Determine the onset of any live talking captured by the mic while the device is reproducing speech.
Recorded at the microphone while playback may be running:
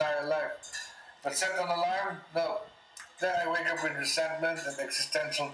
none

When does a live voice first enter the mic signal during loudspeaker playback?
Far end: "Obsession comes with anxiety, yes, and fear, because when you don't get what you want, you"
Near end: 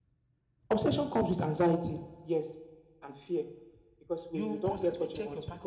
4.3 s

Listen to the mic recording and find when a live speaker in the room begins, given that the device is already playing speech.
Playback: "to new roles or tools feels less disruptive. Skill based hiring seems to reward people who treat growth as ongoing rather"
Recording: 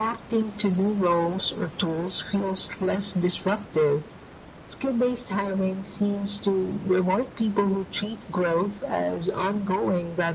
none

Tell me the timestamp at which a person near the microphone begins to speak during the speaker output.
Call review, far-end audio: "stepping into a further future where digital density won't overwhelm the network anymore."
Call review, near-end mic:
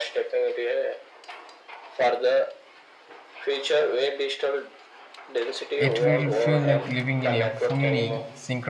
5.8 s

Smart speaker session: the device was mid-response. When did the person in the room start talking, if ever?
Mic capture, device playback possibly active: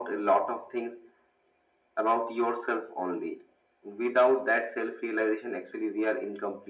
none

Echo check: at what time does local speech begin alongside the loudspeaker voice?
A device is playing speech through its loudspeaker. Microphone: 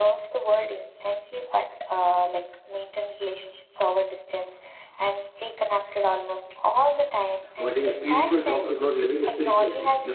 7.6 s

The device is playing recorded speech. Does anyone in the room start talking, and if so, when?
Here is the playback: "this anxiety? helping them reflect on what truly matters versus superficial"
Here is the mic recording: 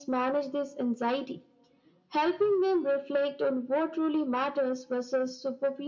none

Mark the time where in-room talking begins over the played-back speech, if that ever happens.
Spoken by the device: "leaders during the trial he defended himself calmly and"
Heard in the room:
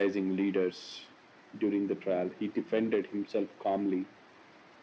none

